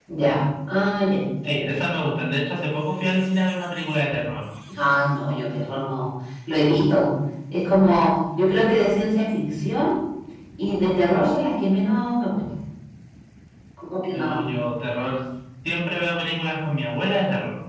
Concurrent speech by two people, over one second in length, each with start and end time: none

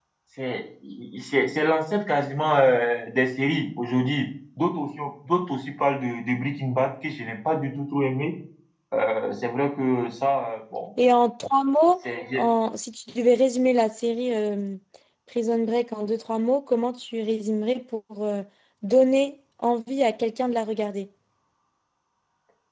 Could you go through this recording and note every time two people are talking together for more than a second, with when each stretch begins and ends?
none

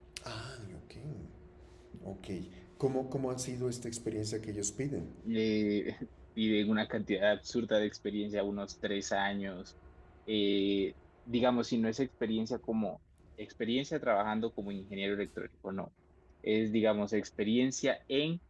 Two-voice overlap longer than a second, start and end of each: none

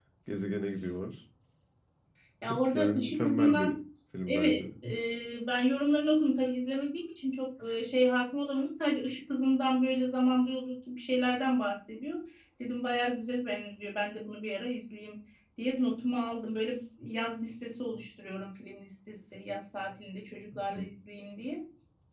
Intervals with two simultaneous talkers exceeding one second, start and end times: 2.4-3.7

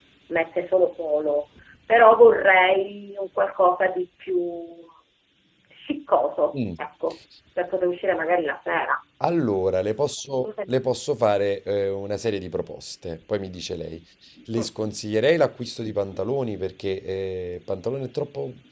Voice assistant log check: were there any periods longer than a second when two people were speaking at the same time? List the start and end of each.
none

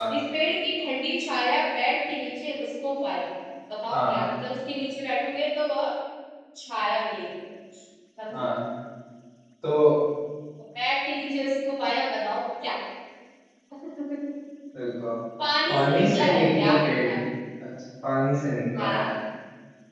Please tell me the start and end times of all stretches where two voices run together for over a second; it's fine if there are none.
15.7-17.1

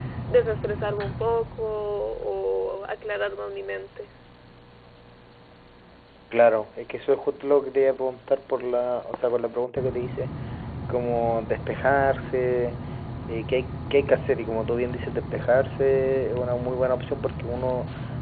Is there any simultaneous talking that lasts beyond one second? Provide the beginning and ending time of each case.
none

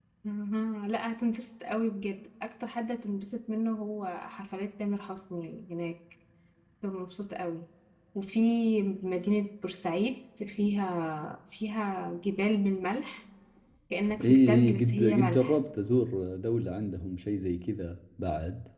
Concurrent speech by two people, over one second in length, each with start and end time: 14.2-15.6

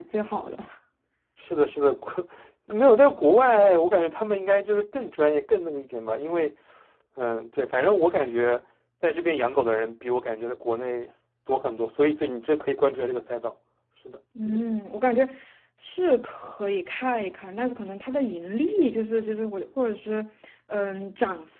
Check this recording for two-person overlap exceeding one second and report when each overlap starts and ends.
none

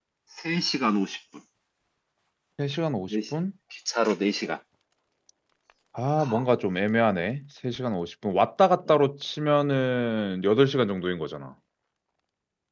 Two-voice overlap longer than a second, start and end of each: none

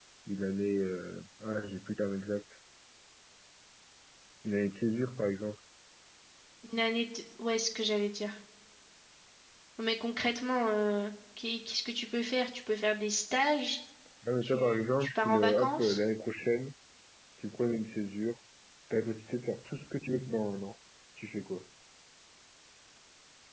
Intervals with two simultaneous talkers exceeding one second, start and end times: 14.4-16.0

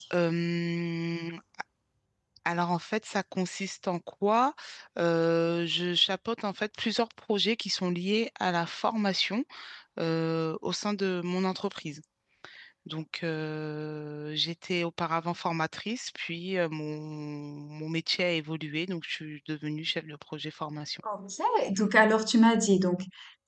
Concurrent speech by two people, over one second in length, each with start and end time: none

